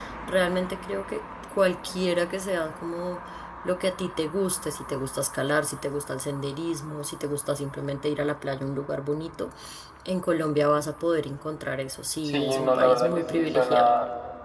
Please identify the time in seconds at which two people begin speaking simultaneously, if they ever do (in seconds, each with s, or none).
12.2 s